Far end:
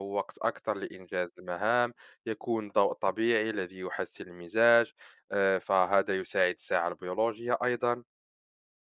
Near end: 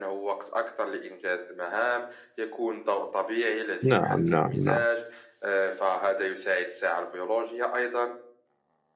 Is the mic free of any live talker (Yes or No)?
No